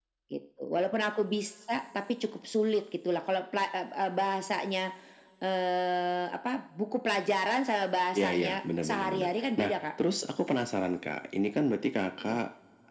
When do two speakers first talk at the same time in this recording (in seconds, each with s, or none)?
8.1 s